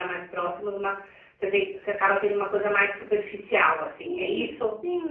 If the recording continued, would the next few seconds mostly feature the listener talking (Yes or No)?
Yes